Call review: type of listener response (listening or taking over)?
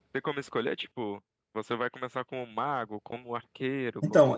taking over